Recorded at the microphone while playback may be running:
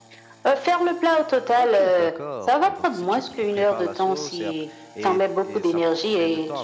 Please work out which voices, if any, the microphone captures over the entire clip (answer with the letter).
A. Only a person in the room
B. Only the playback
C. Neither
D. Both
D